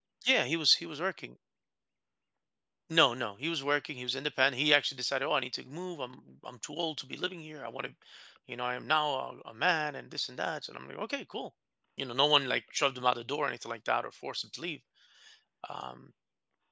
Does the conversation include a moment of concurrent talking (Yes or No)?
No